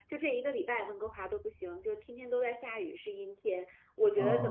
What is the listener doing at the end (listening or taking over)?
listening